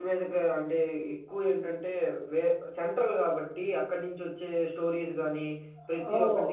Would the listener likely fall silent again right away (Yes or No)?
Yes